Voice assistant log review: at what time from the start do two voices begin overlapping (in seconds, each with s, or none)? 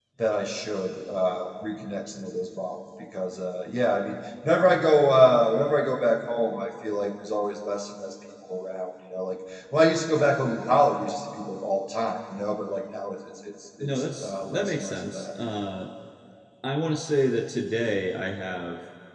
13.8 s